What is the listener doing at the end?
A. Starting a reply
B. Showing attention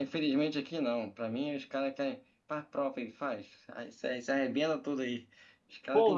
A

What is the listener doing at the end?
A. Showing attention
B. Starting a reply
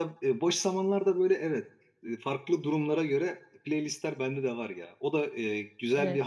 A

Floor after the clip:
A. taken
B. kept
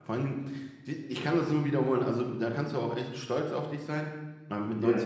B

